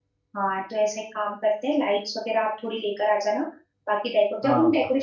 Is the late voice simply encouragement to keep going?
Yes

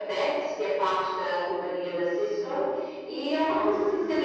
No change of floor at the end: Yes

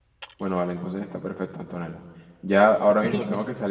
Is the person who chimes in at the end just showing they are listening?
Yes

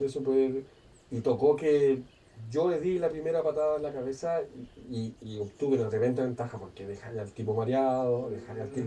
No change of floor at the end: No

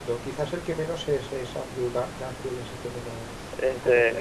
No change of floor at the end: No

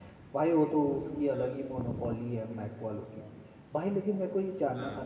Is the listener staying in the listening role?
Yes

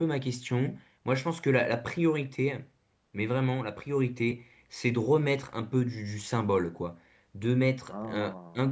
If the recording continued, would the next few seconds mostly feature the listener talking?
No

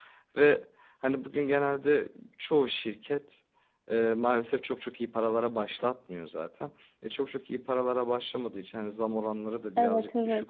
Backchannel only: Yes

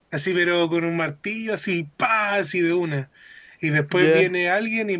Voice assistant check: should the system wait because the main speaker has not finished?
Yes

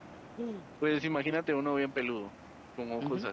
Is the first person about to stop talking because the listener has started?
Yes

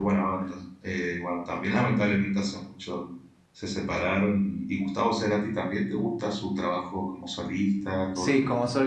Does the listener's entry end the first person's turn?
Yes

